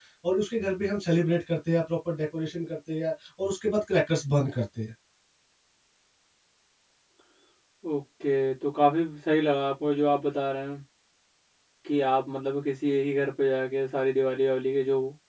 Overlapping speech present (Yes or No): No